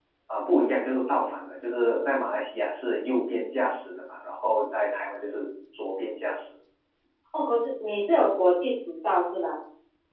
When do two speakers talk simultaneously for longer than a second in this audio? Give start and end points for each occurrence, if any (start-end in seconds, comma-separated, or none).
none